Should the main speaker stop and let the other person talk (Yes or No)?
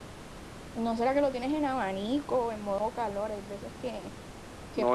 Yes